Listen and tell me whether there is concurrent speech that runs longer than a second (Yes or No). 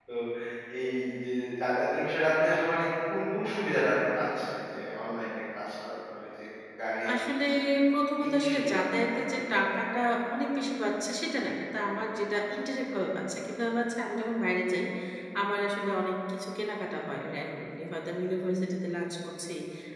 Yes